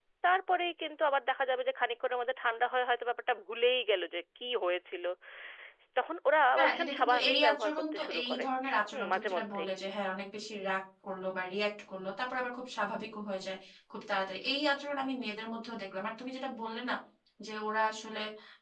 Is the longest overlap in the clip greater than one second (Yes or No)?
Yes